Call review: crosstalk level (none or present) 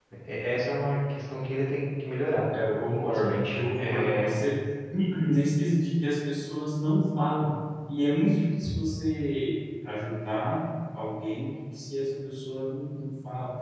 present